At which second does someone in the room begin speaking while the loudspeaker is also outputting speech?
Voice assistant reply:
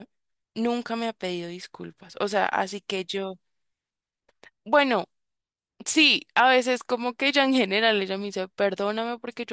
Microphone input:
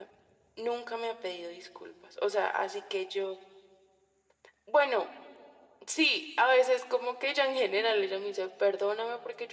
none

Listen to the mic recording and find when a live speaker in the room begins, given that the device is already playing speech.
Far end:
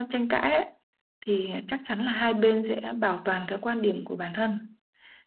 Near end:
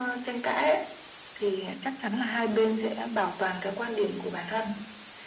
none

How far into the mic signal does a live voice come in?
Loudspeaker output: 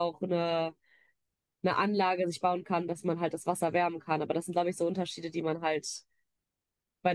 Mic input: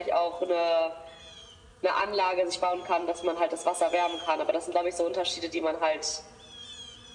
none

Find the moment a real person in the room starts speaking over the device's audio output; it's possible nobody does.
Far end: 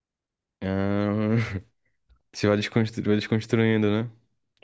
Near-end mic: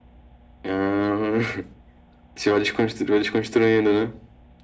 none

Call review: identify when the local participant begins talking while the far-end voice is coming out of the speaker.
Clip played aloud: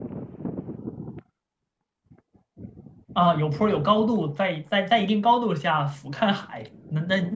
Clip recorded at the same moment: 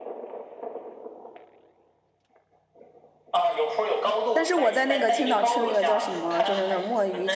4.3 s

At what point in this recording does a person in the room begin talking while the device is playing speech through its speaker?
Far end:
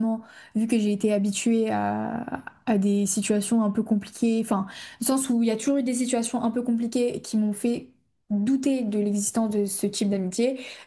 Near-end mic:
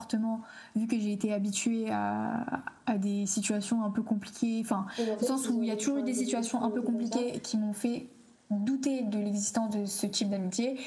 5.0 s

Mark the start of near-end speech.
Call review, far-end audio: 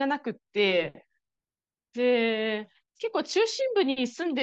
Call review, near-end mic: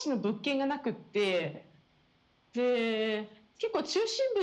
none

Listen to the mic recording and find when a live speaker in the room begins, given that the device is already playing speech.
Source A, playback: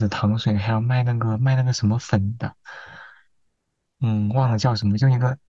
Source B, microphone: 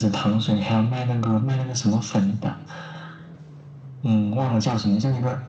none

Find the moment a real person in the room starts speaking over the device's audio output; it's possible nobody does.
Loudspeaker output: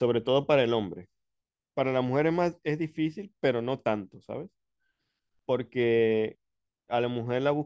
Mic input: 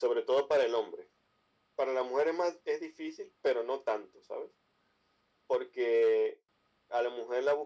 none

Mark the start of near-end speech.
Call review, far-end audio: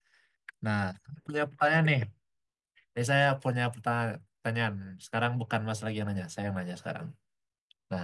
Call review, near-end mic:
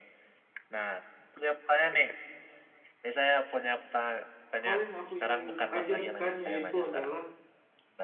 4.6 s

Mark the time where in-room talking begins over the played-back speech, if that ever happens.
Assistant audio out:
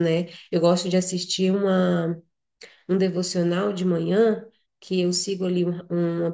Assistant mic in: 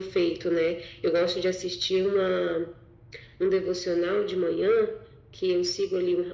none

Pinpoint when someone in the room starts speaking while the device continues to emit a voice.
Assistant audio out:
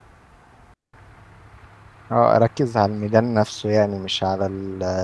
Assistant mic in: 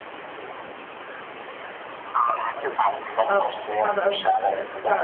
3.3 s

